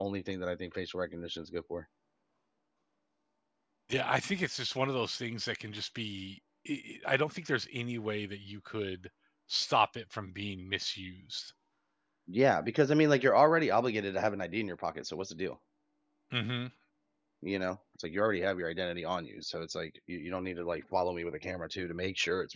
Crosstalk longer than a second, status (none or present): none